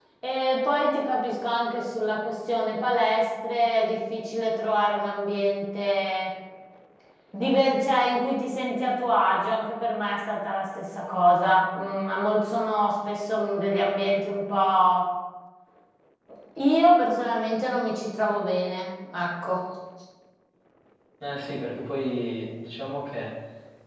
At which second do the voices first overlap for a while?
none

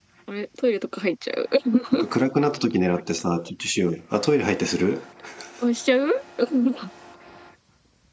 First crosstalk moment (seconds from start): none

